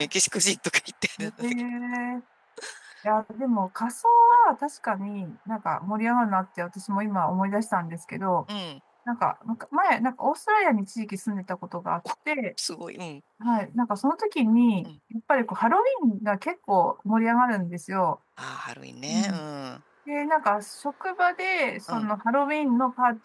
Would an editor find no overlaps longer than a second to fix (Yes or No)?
Yes